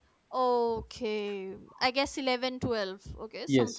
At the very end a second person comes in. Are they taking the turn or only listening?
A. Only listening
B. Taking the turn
B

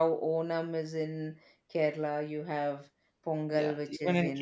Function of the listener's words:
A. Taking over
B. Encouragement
A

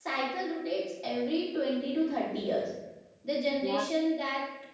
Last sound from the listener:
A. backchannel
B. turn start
A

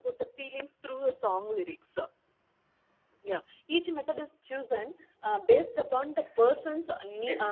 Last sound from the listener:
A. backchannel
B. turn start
A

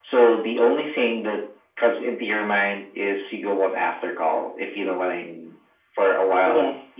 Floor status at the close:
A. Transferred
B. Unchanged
B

